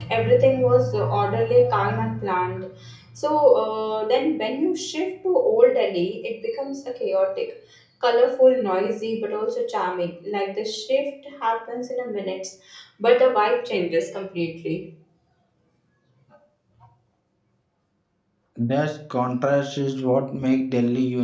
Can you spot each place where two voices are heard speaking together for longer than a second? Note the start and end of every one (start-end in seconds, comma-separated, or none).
none